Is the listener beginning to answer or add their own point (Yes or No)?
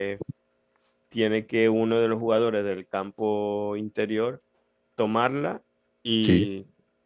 No